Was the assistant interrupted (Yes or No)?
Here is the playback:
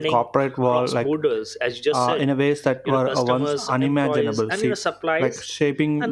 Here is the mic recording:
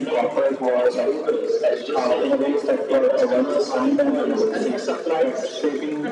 No